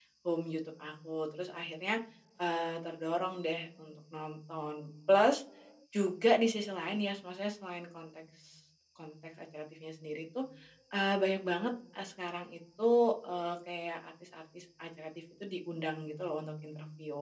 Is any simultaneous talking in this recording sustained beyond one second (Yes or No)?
No